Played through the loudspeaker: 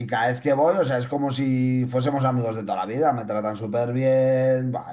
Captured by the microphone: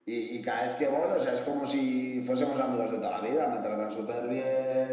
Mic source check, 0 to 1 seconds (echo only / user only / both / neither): echo only